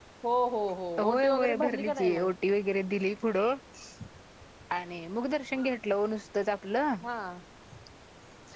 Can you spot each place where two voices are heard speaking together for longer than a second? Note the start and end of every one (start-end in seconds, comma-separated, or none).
1.0-2.3